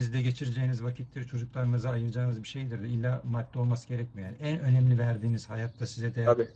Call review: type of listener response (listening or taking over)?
listening